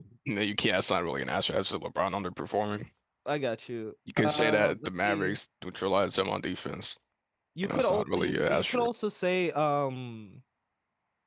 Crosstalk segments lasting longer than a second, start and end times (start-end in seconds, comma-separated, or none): 4.2-5.4, 7.6-8.9